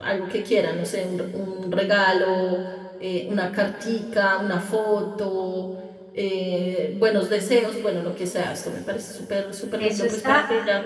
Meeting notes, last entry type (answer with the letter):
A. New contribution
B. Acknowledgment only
A